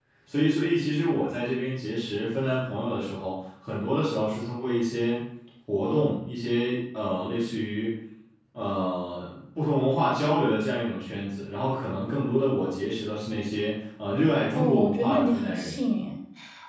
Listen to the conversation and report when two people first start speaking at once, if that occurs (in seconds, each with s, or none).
14.6 s